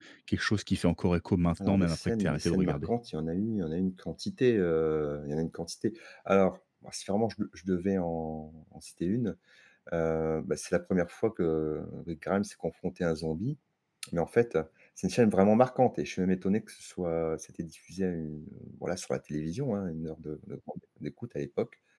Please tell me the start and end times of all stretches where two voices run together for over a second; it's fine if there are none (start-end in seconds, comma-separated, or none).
1.7-2.9